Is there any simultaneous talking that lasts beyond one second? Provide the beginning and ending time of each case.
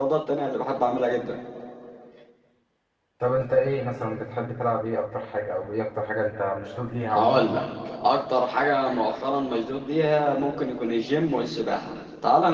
none

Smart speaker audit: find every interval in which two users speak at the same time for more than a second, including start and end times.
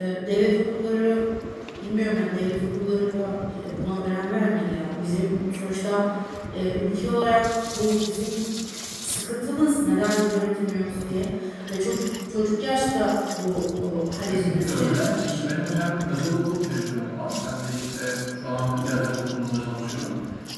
14.2-15.6

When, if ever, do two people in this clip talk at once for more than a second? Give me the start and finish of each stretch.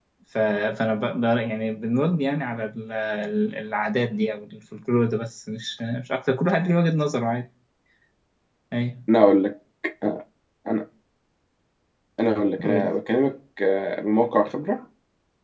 none

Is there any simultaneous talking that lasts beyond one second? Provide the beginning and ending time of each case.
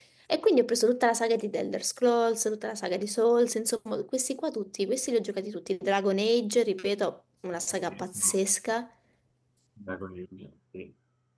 none

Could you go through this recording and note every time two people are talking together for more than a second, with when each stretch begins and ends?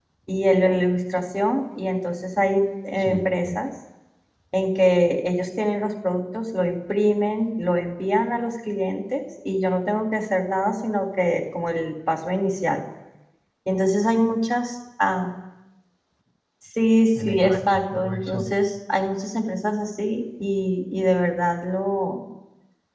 17.2-18.5

